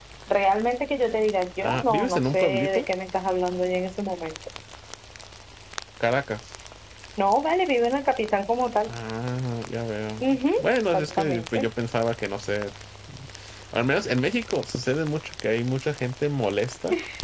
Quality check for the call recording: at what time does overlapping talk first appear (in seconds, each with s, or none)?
1.6 s